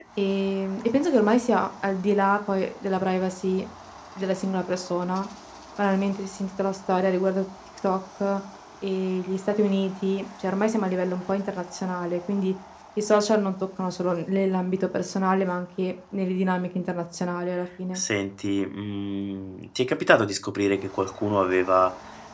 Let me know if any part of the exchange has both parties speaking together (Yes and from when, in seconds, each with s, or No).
No